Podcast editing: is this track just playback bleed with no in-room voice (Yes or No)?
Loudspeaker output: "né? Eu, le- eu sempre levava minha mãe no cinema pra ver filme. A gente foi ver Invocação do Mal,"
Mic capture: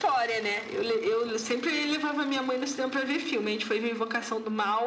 Yes